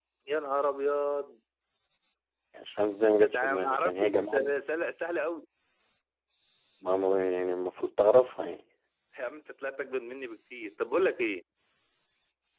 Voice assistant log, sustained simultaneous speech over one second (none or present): present